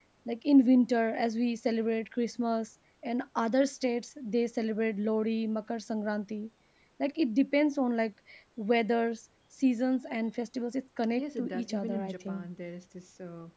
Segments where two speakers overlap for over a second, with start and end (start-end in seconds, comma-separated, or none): 11.2-12.5